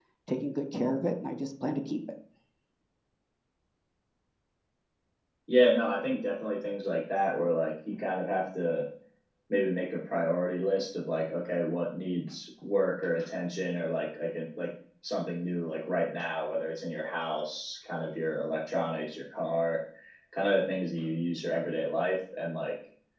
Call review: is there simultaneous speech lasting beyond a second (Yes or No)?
No